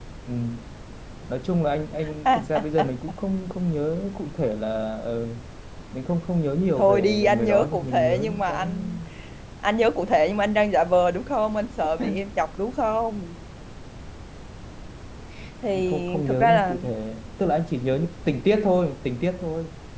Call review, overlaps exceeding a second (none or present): present